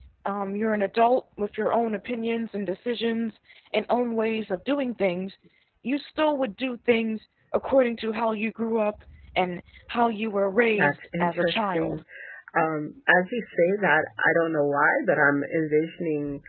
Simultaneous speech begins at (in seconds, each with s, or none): 10.8 s